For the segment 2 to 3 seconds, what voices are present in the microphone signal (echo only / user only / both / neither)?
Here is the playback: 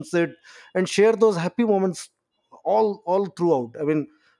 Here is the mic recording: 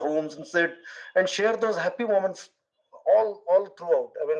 echo only